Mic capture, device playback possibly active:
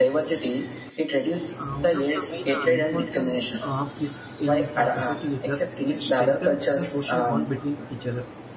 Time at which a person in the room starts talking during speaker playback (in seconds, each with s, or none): 1.6 s